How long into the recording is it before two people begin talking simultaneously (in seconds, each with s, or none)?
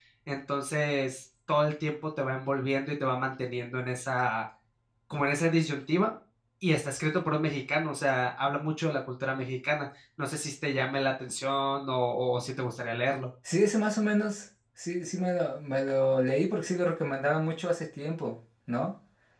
none